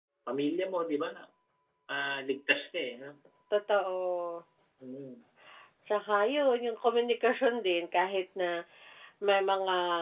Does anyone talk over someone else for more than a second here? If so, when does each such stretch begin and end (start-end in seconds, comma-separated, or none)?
none